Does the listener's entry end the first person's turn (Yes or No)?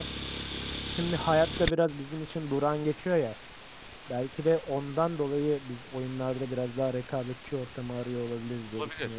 Yes